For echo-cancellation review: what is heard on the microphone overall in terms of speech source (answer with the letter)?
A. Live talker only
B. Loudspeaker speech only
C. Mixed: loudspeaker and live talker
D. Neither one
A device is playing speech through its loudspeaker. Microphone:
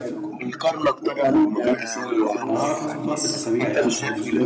C